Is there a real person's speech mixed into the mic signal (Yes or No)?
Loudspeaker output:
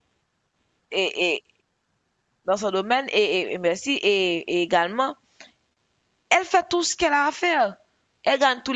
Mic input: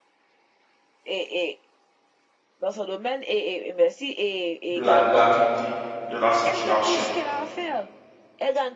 Yes